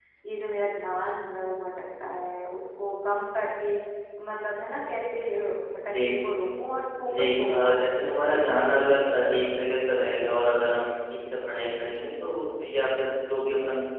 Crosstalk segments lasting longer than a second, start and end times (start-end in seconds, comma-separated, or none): 7.1-8.4